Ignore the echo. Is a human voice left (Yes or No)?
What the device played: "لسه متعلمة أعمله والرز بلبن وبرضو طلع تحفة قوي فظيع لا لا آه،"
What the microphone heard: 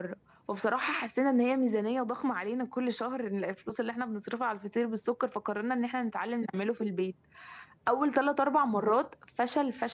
Yes